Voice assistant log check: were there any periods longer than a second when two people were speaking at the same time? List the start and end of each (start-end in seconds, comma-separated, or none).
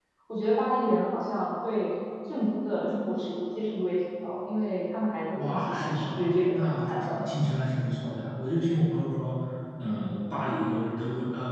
5.3-7.3